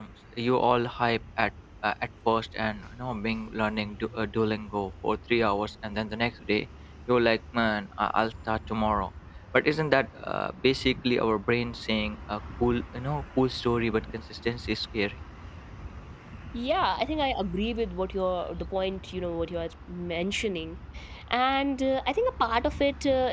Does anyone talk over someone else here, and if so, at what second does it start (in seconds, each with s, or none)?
none